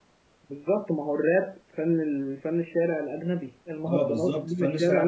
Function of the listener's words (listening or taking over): taking over